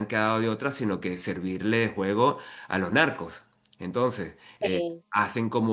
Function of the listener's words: listening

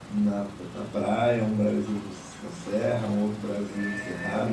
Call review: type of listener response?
listening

